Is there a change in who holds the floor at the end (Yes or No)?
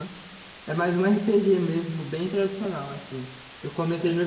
No